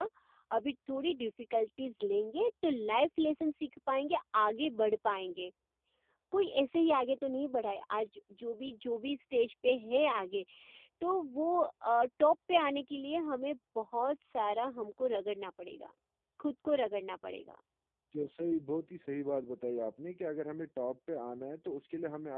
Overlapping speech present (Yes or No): No